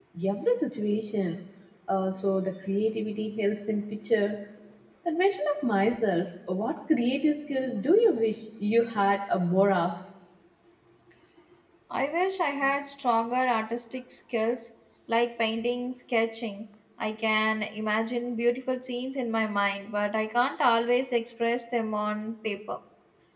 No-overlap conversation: Yes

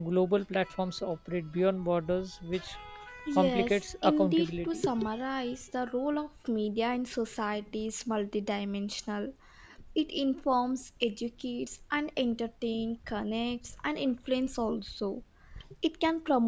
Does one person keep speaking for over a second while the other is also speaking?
Yes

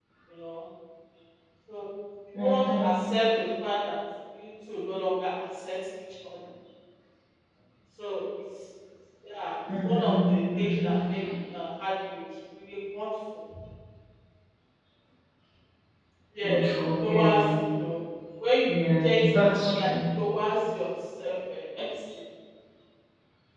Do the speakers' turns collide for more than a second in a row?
Yes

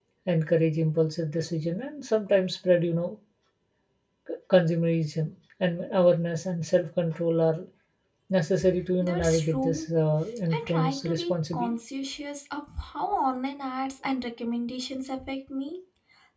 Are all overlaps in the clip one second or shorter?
No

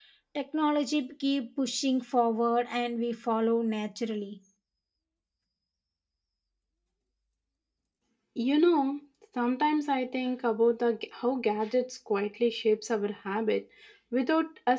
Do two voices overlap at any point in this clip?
No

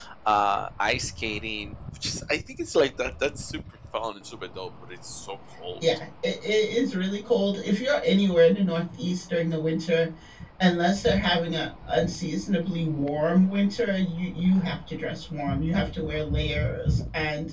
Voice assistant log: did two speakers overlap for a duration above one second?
No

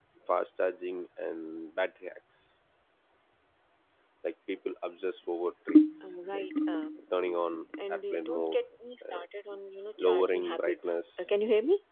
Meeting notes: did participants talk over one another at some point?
Yes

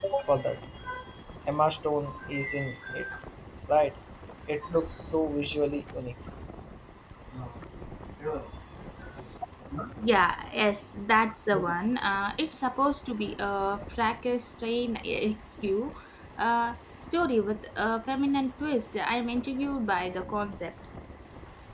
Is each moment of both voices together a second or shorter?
Yes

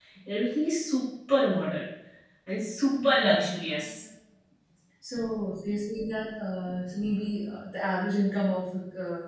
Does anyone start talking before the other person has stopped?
No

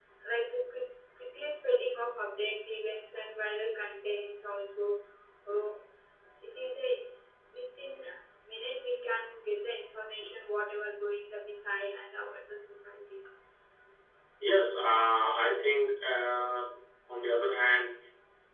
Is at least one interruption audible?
No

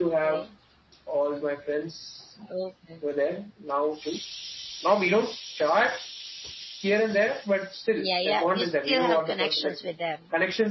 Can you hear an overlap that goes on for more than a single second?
Yes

